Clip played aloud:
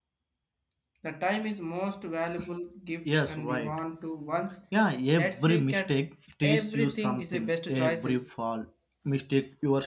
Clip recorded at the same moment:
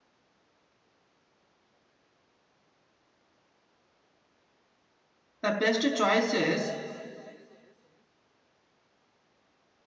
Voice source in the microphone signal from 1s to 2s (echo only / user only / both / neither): neither